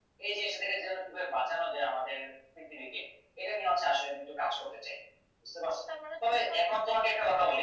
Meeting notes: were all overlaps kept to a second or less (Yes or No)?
No